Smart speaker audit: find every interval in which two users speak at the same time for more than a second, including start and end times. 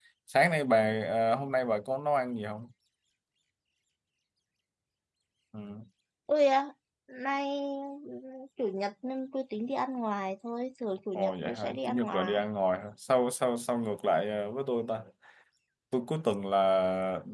11.2-12.4

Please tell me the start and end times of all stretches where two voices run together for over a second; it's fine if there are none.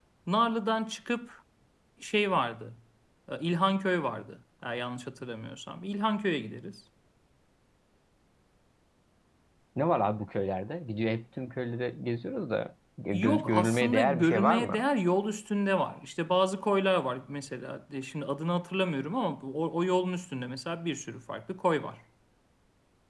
13.1-14.8

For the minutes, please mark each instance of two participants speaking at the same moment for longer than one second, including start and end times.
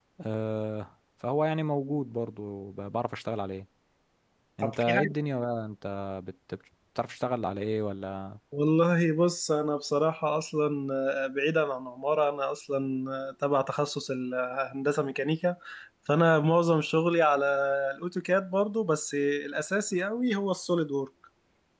none

